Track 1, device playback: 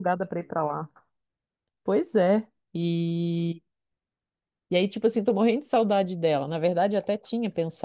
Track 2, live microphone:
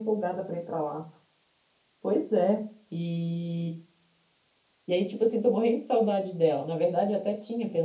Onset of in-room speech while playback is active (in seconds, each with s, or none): none